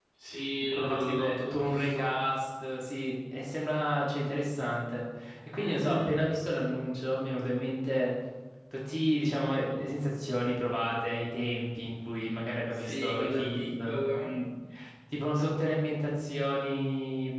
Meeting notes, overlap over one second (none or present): present